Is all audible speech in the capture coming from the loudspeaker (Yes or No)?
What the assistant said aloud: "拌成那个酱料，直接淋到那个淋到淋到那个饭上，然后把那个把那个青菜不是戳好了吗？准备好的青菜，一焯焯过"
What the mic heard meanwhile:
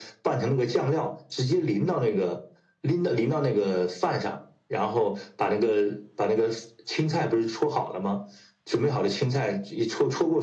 Yes